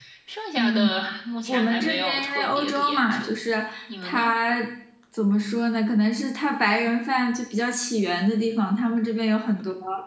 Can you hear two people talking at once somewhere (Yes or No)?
Yes